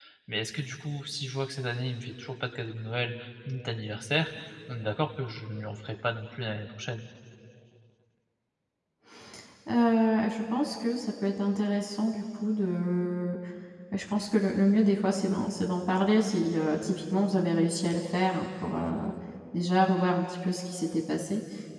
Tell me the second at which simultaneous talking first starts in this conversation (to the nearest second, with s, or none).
none